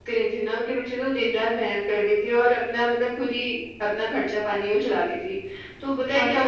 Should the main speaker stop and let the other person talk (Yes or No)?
No